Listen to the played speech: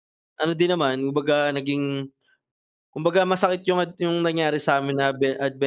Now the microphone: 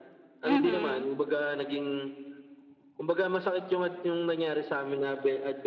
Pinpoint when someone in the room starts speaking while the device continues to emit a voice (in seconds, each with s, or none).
0.4 s